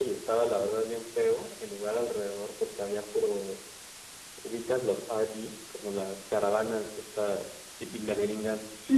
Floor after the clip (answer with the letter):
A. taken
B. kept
A